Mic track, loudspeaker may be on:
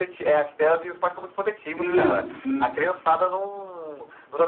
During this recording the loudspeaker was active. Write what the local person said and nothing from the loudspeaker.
Sim, sim.

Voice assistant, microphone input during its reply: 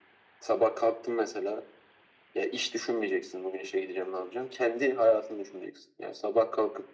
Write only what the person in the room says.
none

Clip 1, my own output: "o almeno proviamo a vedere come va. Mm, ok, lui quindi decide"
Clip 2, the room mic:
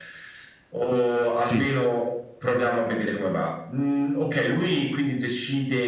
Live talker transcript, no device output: Sì,

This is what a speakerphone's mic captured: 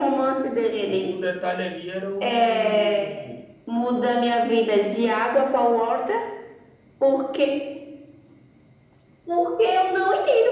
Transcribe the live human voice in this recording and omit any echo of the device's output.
O, o detalhe ali era o...

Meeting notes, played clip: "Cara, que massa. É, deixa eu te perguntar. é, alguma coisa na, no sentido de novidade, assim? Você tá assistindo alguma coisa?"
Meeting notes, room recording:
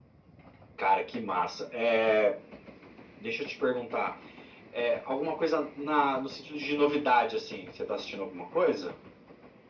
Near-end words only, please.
none

